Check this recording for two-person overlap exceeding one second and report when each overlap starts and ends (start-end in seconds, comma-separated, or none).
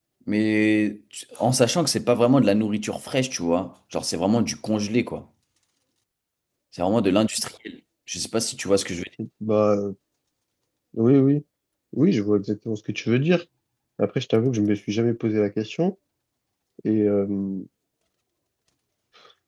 none